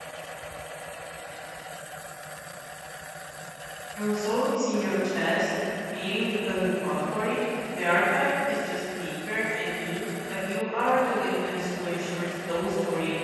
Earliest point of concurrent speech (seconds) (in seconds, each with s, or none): none